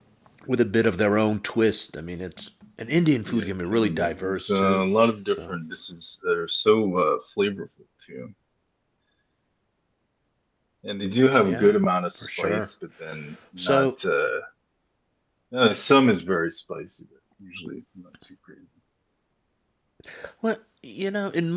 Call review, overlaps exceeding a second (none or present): present